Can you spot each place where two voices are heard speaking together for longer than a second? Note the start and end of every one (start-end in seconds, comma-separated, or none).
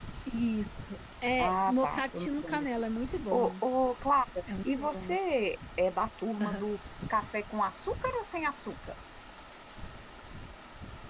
1.4-2.6